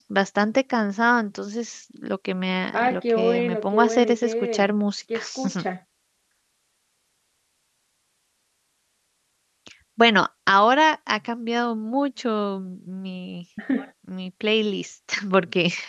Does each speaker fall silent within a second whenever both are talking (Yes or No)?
No